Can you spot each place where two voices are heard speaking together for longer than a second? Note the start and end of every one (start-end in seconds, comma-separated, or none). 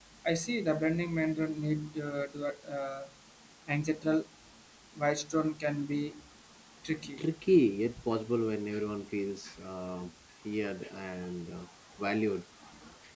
none